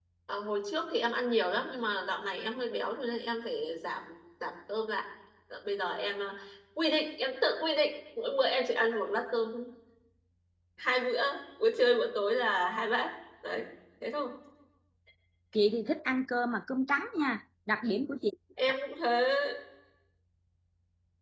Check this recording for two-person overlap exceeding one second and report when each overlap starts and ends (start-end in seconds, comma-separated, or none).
none